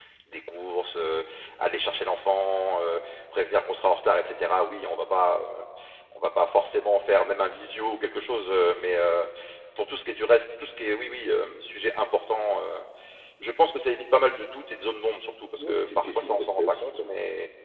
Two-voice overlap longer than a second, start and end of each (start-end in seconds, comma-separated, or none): 15.6-17.1